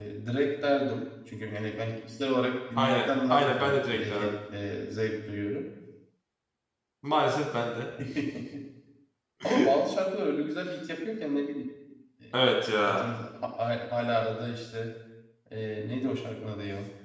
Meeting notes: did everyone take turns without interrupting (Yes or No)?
No